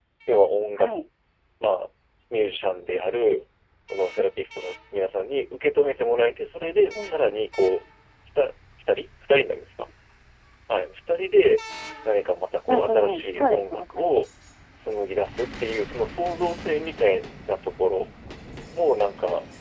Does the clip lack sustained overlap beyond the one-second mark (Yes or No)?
No